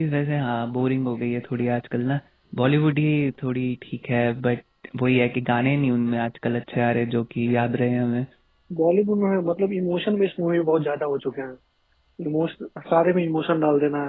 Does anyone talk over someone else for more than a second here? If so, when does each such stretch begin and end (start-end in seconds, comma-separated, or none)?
none